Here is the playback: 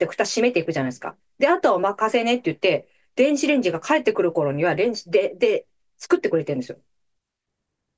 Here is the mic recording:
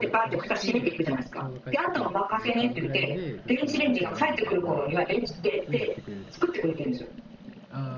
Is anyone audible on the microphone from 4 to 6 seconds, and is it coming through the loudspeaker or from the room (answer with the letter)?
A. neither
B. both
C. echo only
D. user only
B